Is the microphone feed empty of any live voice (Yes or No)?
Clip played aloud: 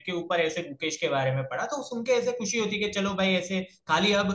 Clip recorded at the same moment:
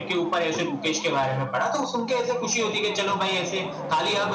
Yes